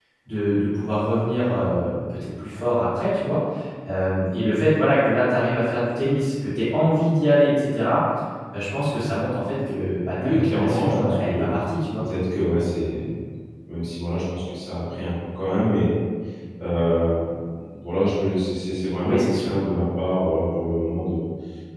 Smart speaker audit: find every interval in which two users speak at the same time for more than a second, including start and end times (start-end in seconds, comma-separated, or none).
10.2-11.5